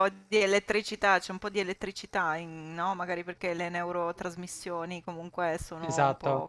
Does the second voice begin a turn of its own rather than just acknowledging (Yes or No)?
No